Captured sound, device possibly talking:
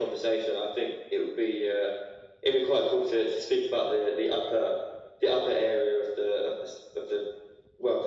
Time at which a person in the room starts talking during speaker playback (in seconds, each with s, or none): none